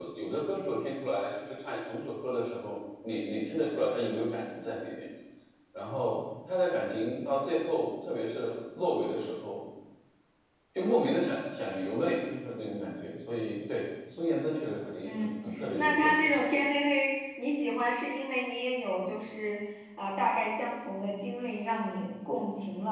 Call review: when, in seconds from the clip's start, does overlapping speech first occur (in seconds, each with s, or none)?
15.0 s